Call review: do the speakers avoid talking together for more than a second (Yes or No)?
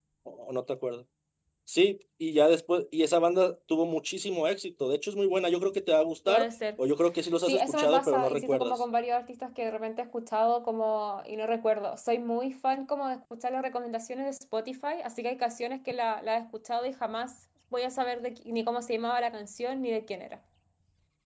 No